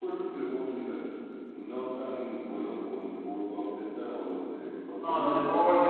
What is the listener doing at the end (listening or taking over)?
taking over